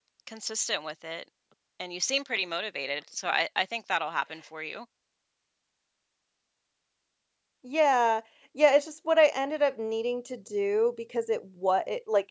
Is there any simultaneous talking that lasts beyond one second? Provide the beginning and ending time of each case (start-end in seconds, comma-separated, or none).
none